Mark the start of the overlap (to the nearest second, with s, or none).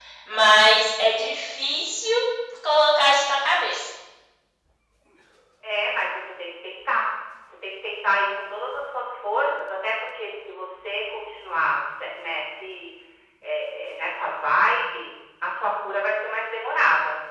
none